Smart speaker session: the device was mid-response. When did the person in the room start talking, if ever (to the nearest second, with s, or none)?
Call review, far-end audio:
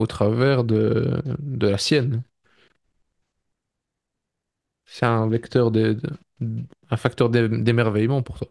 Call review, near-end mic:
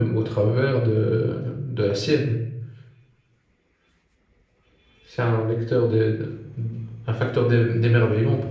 none